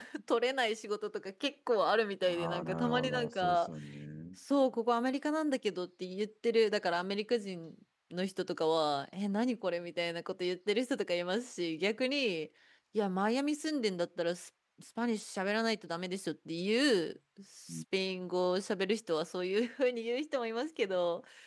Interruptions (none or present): present